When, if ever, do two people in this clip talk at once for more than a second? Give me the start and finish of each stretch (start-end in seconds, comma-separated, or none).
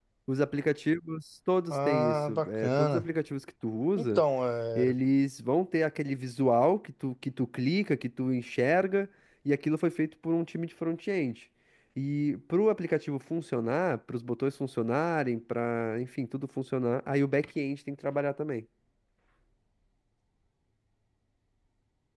1.7-3.0